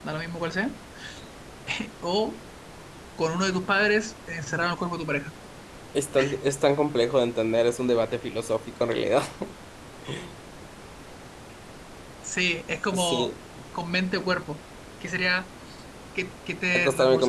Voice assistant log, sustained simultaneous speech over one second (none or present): none